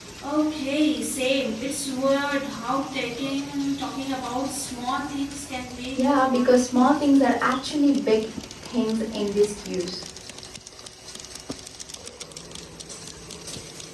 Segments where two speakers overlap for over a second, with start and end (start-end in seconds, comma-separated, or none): 5.9-7.5